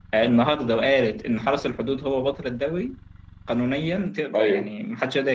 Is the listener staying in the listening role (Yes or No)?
Yes